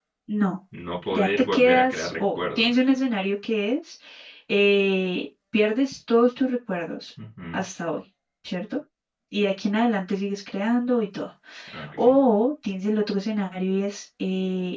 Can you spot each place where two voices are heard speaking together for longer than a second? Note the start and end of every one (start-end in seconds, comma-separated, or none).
1.1-2.7